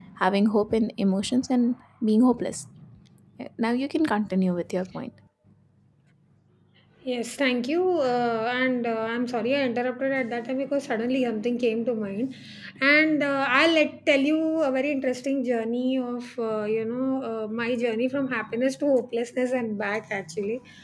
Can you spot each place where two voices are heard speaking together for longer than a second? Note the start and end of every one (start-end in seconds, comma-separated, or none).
none